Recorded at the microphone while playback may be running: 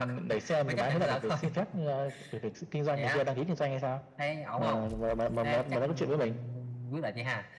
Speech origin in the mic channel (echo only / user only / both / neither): echo only